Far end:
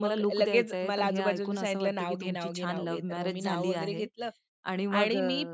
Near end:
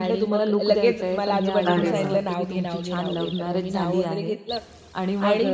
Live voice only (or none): अरे वाह!